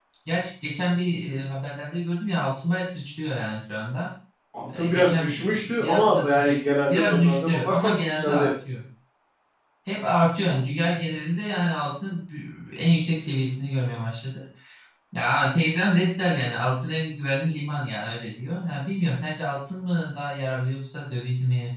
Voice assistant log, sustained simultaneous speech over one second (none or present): present